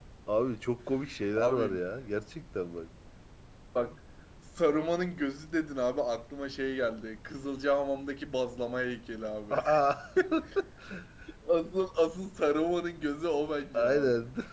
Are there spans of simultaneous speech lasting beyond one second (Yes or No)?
No